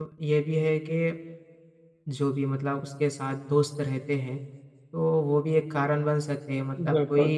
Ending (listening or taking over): listening